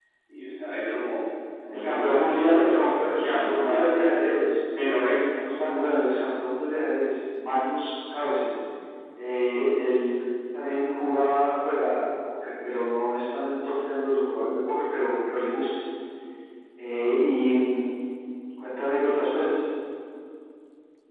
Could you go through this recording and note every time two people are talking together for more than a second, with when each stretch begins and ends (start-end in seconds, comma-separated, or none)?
1.7-3.9